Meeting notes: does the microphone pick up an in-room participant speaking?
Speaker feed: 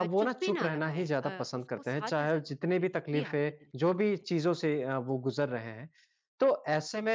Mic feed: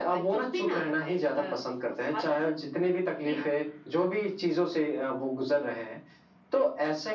No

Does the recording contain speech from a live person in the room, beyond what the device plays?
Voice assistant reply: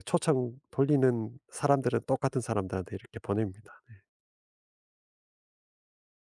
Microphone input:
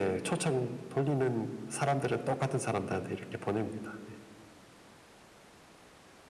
No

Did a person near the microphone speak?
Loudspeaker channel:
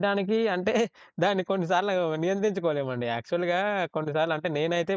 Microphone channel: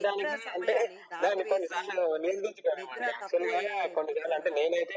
Yes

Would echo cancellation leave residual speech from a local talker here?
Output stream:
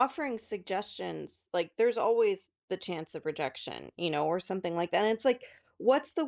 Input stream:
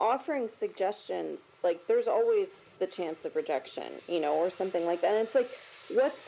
No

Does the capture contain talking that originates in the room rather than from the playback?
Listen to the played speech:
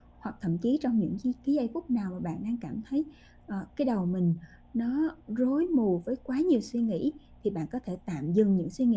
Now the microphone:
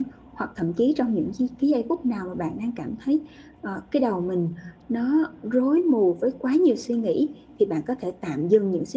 No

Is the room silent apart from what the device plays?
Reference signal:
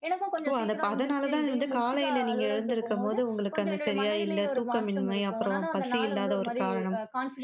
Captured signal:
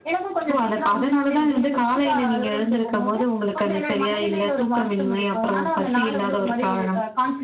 Yes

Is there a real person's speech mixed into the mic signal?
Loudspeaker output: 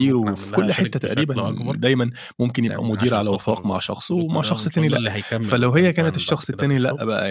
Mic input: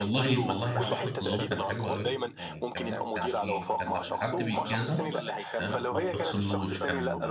Yes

